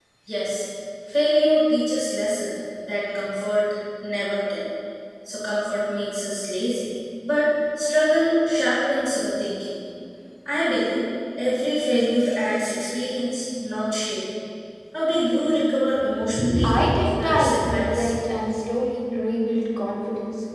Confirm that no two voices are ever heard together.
No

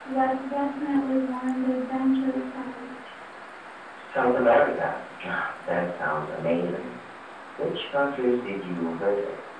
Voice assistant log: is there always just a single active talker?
Yes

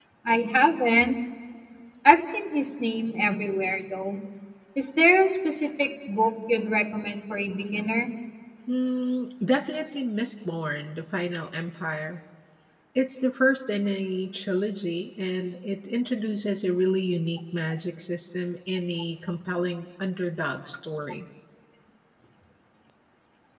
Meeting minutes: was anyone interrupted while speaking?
No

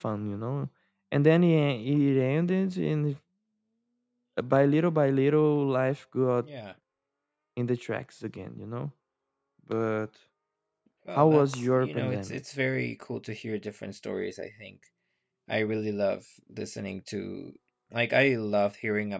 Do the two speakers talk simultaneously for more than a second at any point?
Yes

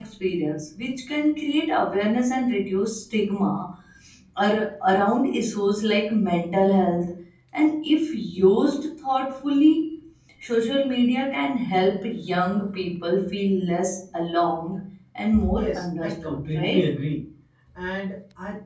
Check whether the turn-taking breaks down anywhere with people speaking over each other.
Yes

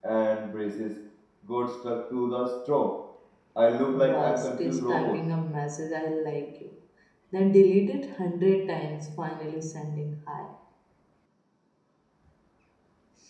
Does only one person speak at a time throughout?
No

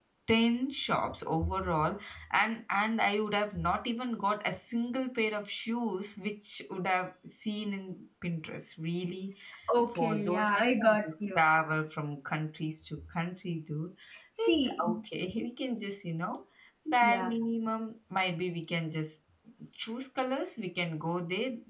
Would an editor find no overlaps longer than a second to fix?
No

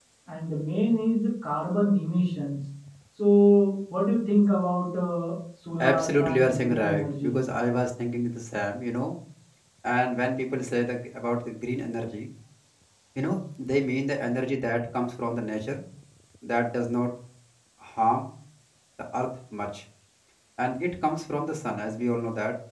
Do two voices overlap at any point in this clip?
Yes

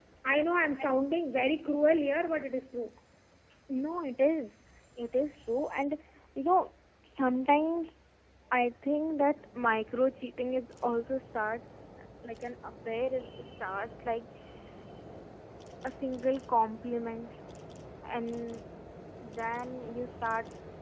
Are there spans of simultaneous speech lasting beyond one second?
No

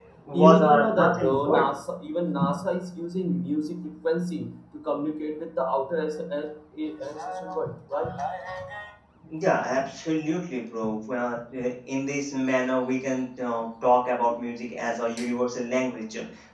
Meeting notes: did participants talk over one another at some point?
Yes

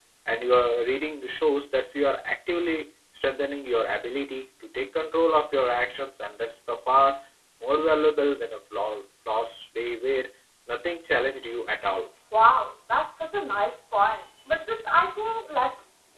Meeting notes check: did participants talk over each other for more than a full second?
No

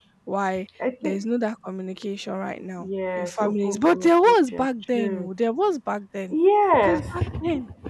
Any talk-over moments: Yes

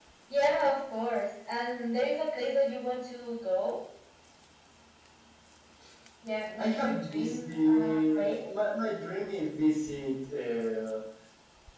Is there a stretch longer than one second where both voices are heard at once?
Yes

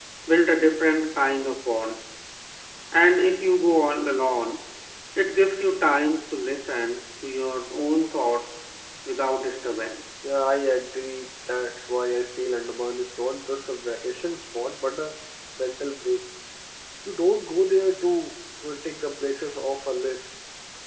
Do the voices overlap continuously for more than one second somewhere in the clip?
No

